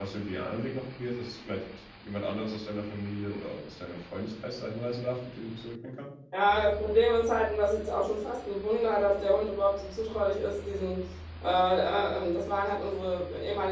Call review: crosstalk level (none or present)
none